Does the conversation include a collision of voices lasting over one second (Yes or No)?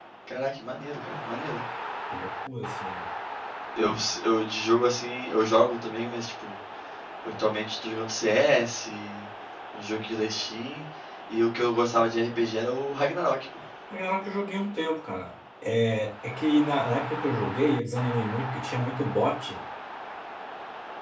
No